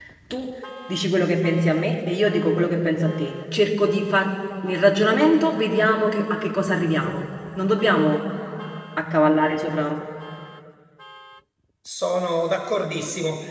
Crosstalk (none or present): none